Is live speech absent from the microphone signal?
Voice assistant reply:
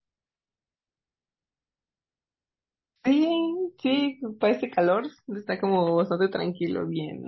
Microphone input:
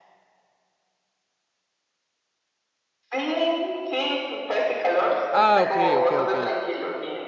No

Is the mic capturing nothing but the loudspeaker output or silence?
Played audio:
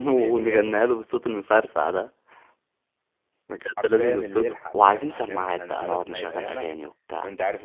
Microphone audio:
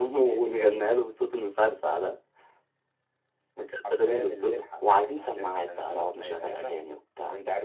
Yes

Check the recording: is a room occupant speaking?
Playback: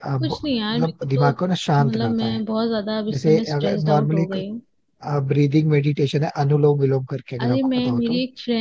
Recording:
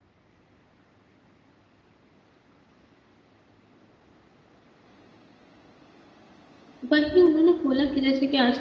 Yes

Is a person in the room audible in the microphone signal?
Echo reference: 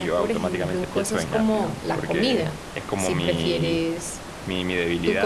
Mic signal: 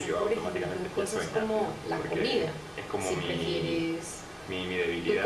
No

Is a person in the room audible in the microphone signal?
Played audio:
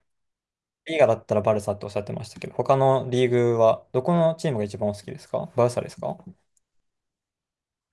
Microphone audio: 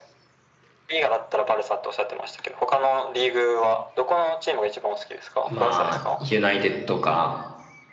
Yes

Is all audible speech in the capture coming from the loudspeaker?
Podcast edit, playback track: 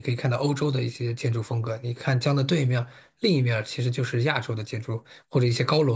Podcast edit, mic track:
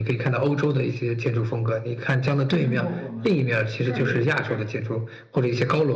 No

